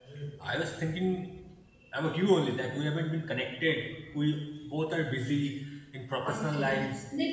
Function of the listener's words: taking over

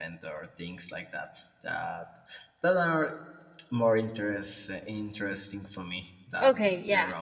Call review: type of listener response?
taking over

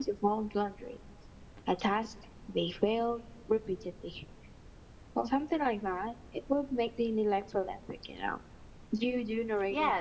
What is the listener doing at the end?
taking over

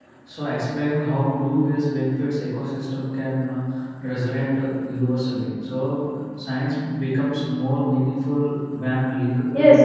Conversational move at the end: taking over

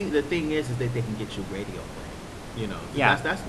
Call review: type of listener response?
listening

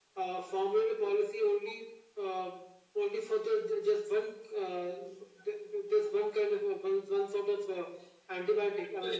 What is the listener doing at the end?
taking over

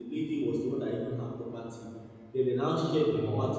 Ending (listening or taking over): listening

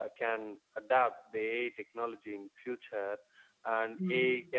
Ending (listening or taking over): listening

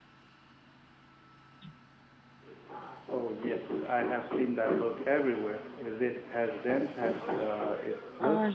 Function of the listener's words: taking over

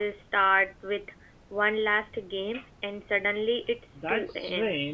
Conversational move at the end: taking over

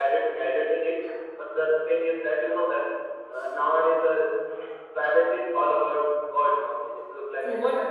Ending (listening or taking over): taking over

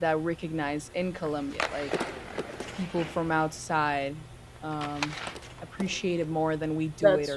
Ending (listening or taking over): listening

